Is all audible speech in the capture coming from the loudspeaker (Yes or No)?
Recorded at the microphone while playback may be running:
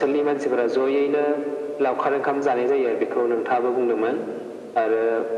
Yes